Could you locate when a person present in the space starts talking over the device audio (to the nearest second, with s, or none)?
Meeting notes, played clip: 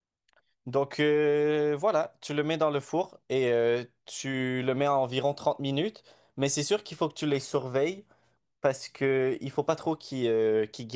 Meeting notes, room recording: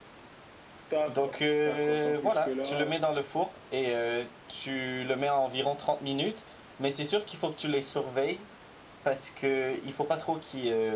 1 s